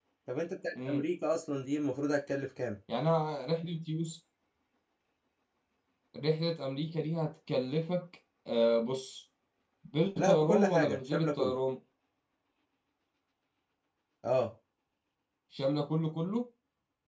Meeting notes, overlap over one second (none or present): present